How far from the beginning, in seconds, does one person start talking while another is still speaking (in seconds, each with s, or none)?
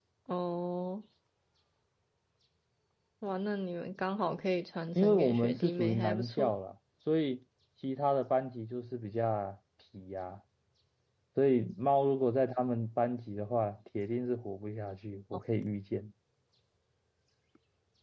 5.0 s